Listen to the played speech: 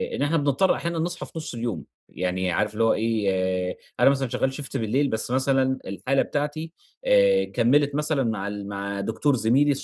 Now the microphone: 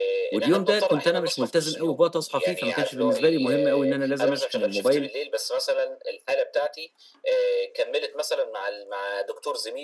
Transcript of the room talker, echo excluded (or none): واليوم ده كنت أنا مش ملتزم أوي بوقت أصحى فيه، فما كانش بالنسبة لي مهم أوي إن أنا لازم أشحن الموبايل